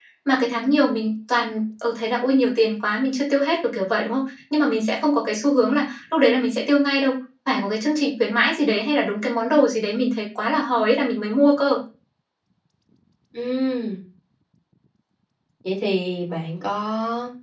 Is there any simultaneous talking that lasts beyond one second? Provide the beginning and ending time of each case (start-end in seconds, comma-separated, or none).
none